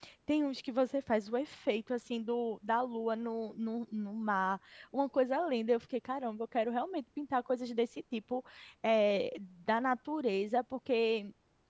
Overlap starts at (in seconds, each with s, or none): none